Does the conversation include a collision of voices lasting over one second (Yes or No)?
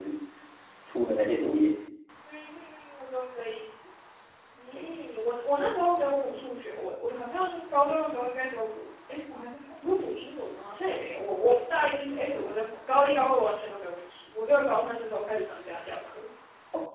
No